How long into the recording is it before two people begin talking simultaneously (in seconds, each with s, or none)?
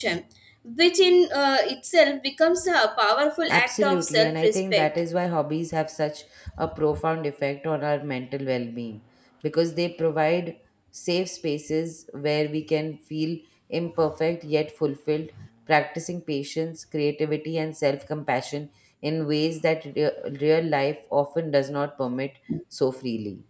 3.5 s